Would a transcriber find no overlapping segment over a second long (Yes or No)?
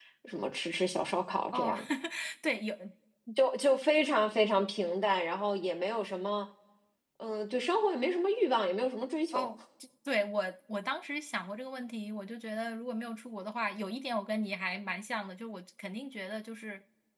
Yes